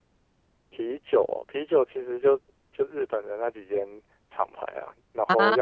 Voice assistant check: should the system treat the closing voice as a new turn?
No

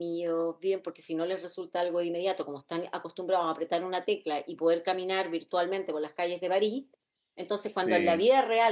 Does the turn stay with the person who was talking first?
Yes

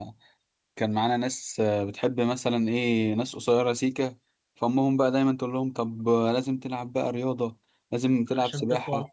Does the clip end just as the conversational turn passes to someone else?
No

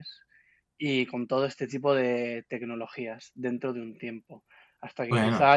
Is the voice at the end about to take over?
No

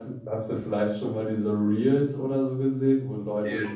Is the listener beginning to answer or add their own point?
No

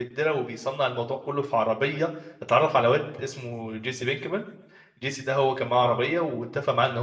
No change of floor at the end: Yes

